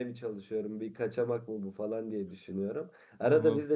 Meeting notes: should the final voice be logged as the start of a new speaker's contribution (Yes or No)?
No